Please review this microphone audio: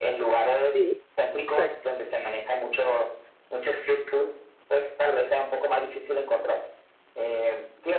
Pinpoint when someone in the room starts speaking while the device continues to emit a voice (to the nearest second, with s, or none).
1 s